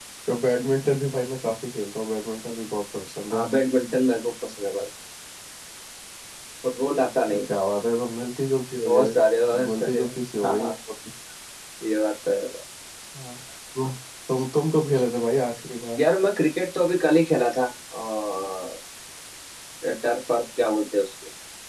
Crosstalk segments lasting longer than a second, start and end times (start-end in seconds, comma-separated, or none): none